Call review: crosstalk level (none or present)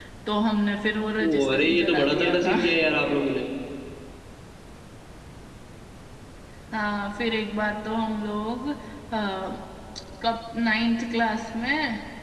present